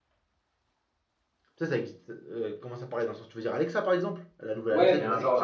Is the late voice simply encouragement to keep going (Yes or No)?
No